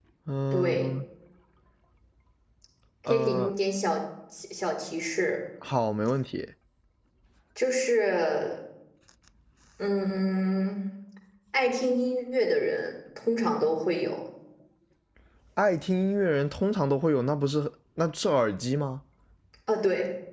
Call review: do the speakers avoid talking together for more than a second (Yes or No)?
Yes